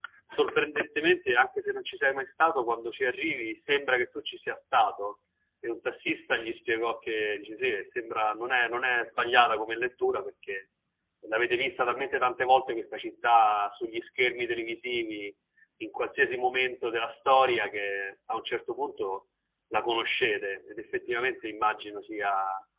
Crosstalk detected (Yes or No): No